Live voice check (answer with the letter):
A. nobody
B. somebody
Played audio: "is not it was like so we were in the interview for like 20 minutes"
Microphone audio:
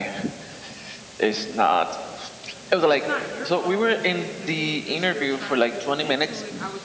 B